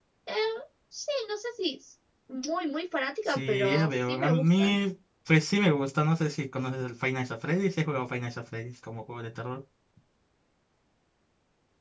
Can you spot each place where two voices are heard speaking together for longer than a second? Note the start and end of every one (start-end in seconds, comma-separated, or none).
3.3-4.7